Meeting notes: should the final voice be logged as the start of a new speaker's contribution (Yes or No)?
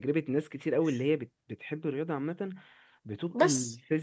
No